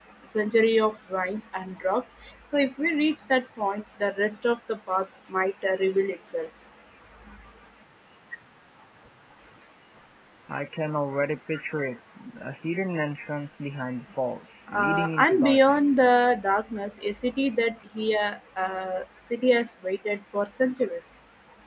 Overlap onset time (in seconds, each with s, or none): 14.7 s